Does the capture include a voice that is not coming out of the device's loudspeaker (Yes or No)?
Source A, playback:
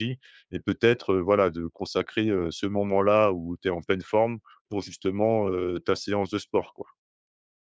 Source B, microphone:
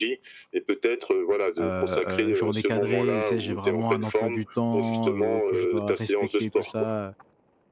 Yes